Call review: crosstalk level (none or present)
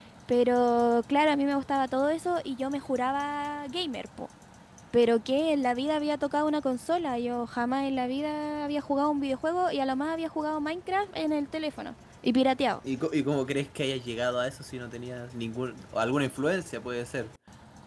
none